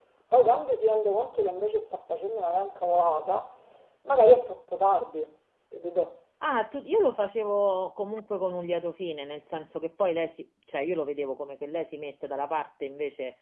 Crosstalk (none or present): none